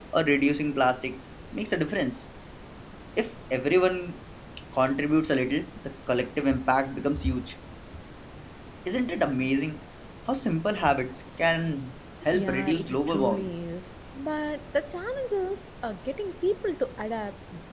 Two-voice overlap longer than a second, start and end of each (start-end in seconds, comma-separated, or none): 12.3-13.5